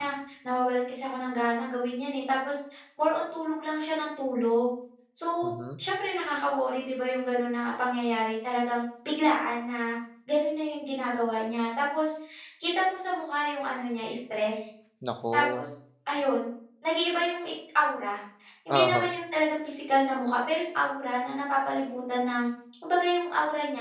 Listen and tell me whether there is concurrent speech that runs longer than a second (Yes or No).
No